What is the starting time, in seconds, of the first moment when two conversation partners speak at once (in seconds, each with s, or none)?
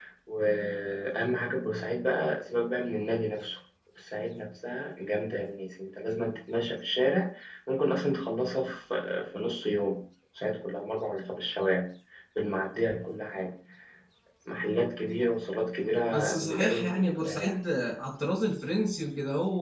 16.1 s